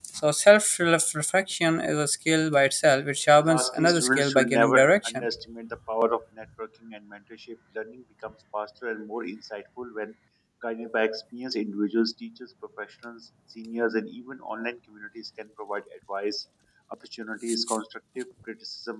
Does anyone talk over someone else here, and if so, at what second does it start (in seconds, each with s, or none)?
3.4 s